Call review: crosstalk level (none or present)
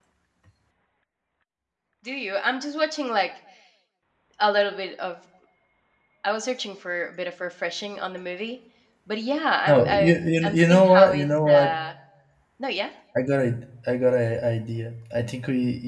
present